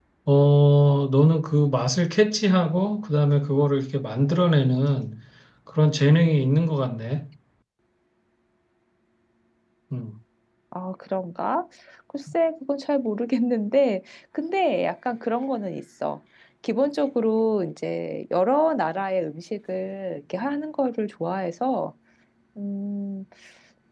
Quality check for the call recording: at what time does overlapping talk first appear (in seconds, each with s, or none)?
none